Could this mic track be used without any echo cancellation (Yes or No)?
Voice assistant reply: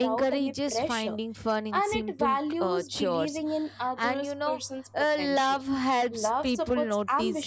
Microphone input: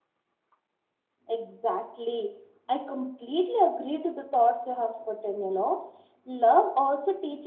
Yes